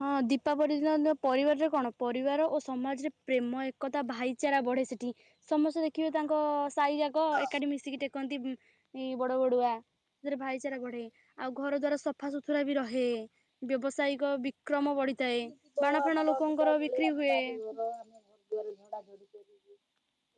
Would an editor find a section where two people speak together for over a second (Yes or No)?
Yes